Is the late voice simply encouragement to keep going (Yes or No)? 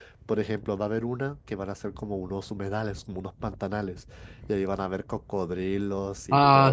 No